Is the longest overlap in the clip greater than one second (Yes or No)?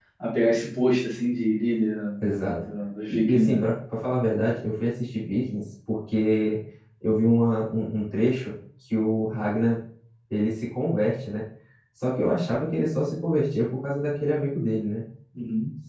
No